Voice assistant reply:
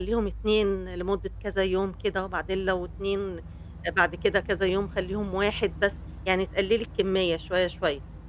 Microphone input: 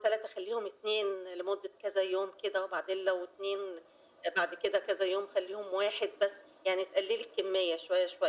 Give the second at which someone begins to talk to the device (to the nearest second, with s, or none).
none